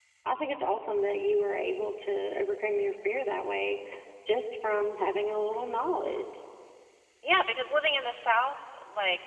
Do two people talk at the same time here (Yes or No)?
No